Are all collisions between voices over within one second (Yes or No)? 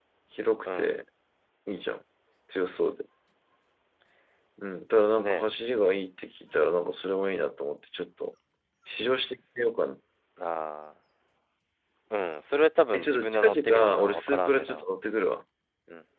No